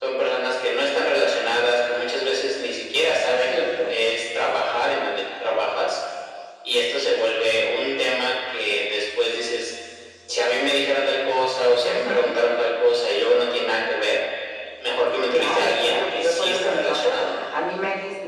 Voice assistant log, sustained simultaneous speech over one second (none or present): present